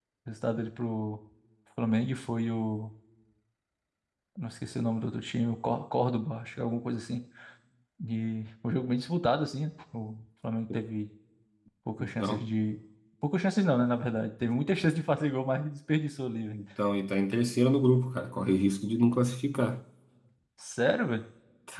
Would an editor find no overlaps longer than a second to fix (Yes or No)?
Yes